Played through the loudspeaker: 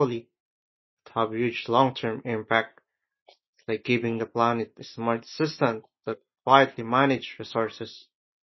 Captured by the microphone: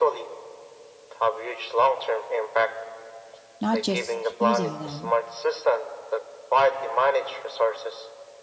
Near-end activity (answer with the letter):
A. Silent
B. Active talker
B